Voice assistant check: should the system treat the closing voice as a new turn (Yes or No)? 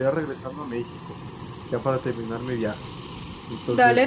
Yes